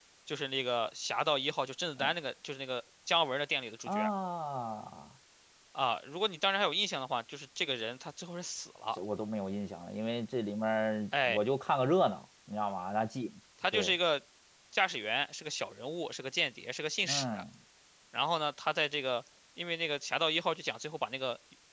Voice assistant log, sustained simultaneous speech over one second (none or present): none